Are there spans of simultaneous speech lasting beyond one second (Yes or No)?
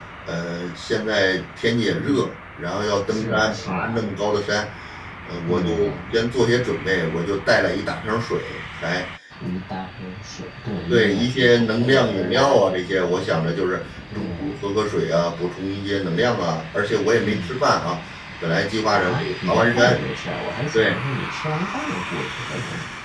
Yes